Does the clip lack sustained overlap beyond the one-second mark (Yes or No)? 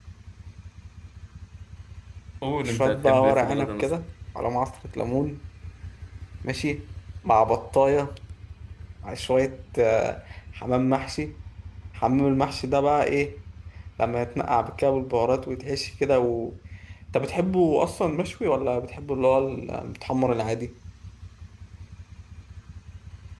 No